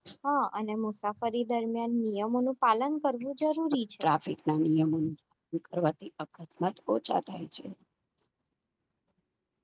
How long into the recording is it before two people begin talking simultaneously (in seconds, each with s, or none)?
none